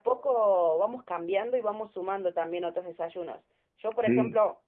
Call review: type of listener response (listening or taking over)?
listening